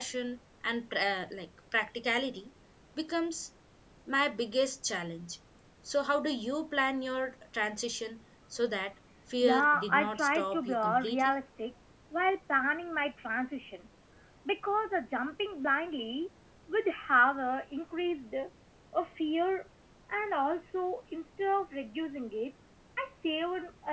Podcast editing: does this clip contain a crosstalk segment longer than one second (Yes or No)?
Yes